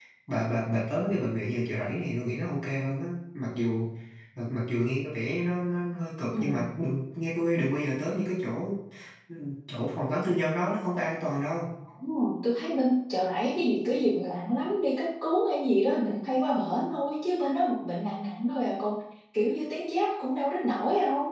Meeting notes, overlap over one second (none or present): none